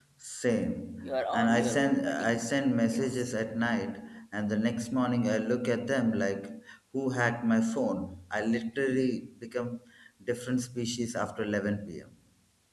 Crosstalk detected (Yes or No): Yes